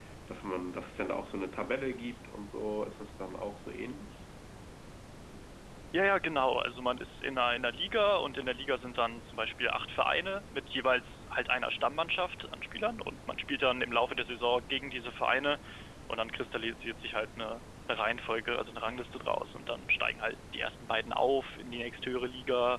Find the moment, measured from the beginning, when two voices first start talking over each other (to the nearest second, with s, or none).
none